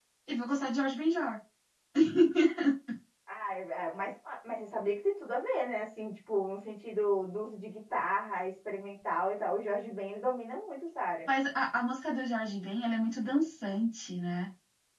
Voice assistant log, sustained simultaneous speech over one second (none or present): none